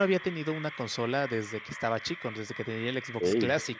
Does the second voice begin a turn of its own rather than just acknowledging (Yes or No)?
No